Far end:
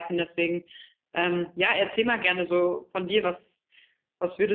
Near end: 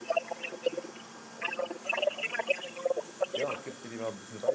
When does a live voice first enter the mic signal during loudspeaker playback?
3.4 s

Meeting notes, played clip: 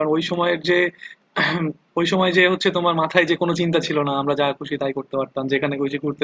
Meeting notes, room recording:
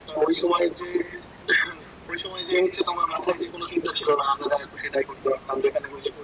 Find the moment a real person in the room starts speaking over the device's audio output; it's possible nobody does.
none

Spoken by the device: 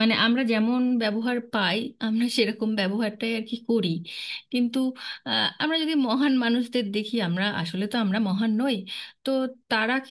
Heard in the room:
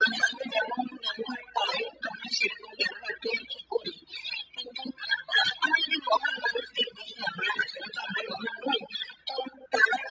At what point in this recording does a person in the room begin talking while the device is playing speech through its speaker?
none

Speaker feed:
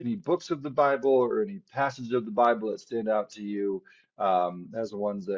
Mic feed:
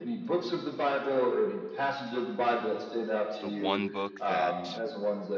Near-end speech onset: 3.4 s

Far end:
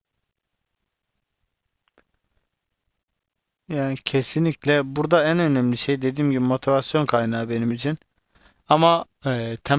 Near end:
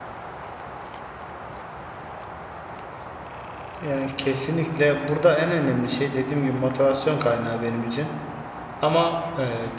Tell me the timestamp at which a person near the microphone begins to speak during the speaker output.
none

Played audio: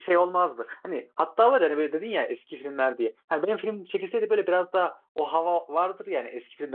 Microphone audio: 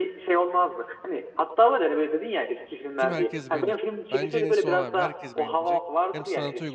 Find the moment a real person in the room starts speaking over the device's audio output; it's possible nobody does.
3.0 s

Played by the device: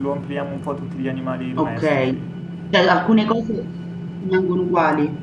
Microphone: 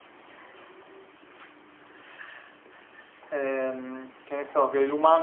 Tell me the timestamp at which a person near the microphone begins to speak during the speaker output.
3.3 s

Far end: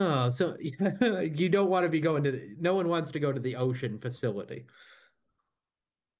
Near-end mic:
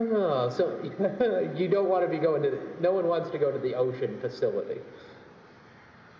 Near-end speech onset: none

